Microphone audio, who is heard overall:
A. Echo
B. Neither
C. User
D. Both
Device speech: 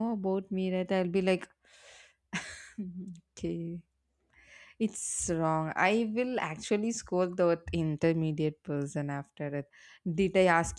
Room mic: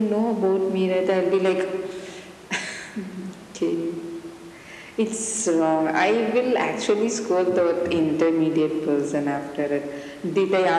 D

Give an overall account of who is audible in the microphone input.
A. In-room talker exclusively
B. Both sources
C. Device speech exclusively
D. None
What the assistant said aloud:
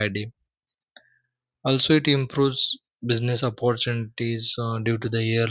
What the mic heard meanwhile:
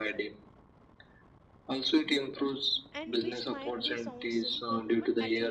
B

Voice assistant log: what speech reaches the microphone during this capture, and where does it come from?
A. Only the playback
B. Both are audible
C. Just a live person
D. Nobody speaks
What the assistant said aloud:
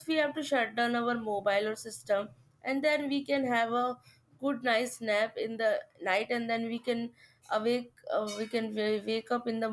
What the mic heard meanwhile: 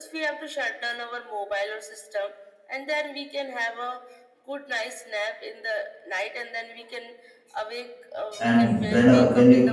B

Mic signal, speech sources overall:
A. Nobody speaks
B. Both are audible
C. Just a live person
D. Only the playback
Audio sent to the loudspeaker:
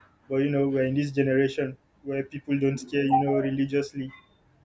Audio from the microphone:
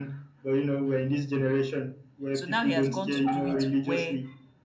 B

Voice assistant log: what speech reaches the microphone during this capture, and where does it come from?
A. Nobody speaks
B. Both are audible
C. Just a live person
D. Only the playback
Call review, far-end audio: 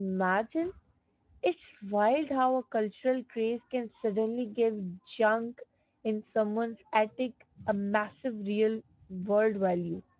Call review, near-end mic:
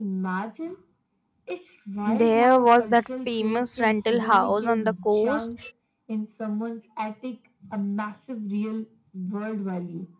B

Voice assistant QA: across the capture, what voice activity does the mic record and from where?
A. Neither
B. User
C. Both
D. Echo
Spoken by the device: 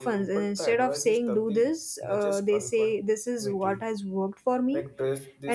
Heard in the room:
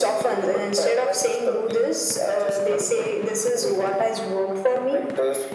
D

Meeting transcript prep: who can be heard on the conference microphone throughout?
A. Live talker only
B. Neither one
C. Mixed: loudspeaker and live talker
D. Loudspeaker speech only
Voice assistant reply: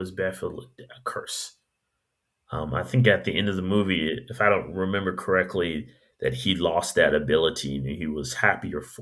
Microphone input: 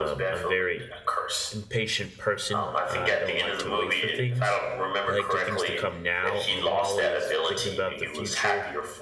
C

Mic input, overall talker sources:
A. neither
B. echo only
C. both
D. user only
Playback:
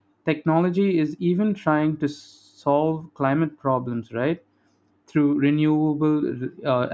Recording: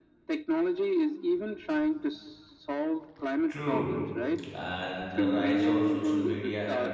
C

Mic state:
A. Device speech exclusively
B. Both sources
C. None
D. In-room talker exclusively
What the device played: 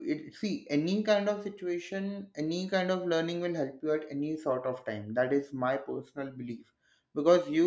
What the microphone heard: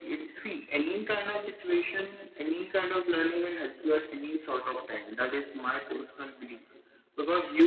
A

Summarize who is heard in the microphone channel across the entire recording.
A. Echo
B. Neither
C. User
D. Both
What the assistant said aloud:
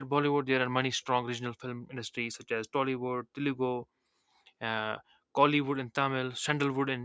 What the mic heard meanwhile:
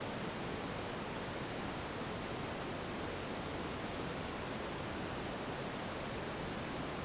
B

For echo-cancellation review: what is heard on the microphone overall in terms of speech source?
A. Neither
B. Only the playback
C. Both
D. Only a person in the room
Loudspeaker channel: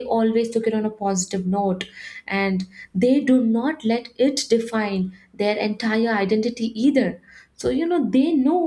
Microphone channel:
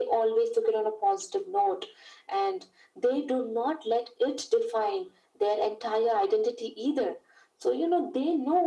B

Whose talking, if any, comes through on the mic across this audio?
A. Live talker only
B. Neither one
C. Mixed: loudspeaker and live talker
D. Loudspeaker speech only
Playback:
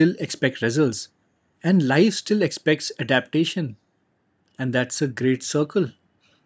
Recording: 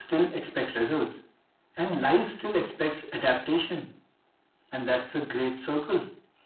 D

